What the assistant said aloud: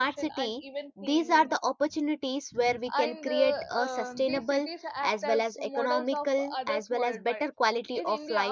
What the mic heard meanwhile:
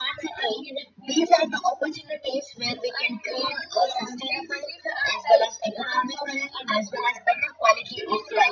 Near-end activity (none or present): none